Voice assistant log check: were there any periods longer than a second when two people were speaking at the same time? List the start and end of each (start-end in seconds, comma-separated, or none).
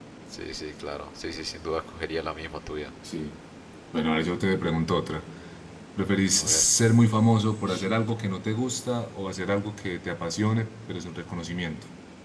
none